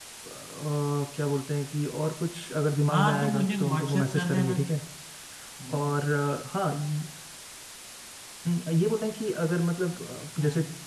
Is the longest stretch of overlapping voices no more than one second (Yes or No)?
No